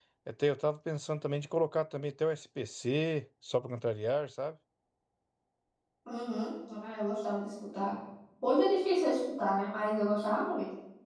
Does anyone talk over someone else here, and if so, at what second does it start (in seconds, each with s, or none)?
none